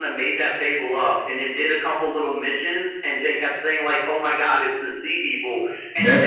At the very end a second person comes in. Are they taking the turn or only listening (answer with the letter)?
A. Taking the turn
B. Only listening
A